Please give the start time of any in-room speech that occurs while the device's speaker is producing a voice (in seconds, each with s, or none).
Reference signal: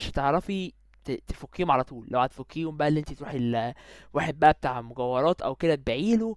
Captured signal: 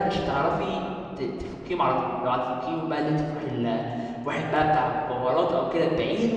none